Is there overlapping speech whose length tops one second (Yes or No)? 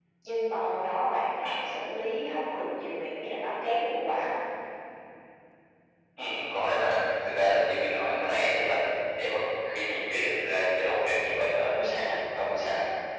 No